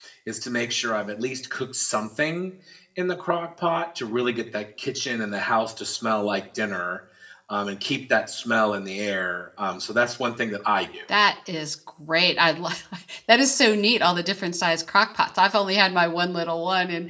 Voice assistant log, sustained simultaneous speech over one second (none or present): none